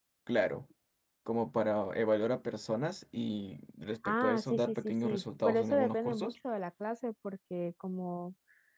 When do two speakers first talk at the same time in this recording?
4.0 s

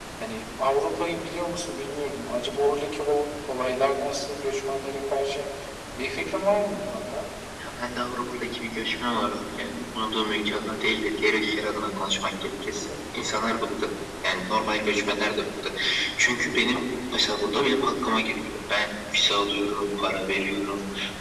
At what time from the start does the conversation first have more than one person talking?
none

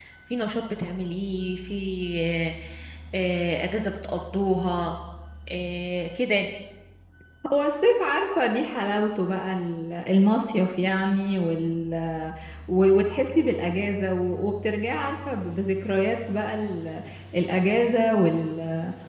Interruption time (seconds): none

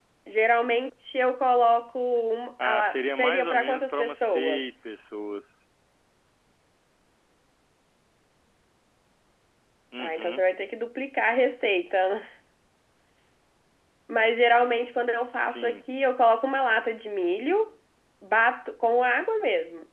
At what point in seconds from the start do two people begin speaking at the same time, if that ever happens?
2.6 s

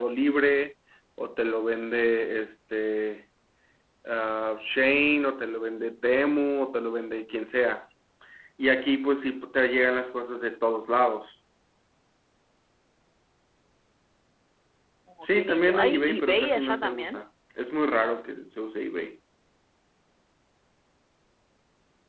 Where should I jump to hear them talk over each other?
15.2 s

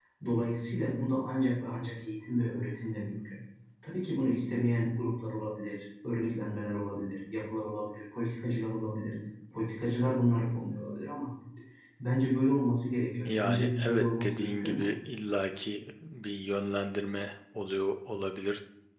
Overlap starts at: 13.2 s

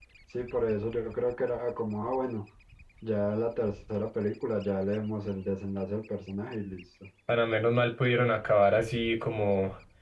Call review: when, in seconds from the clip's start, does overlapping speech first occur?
none

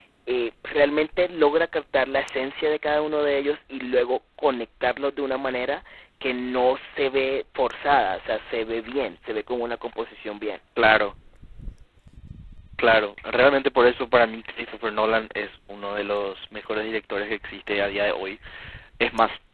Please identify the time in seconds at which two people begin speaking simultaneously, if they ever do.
none

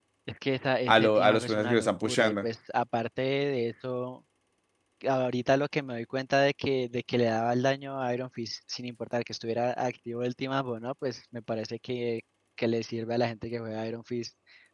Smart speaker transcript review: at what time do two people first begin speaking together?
0.9 s

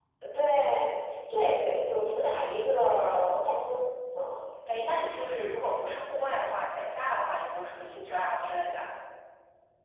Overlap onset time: none

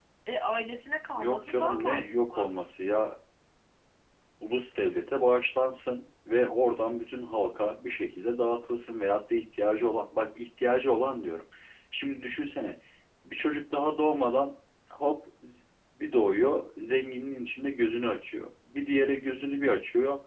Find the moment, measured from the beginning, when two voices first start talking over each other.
1.1 s

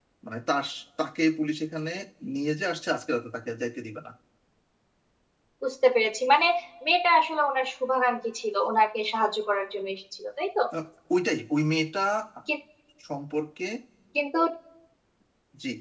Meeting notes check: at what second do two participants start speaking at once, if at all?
none

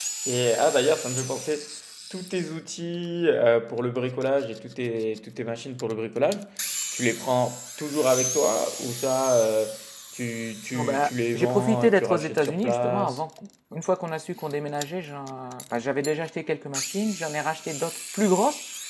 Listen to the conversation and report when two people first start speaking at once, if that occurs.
10.7 s

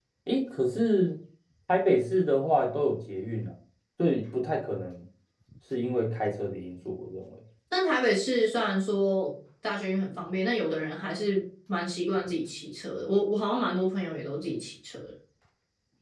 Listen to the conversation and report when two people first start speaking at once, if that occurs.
none

